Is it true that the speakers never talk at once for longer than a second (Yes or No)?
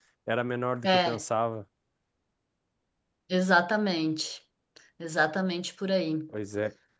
Yes